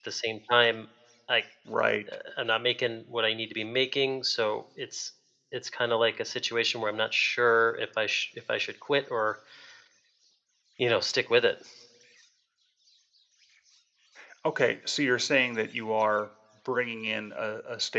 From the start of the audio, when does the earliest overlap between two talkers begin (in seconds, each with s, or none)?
none